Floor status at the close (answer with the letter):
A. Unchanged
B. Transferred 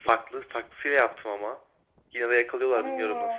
A